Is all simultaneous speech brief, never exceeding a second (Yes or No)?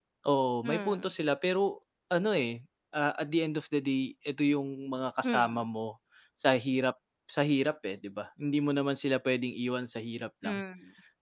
Yes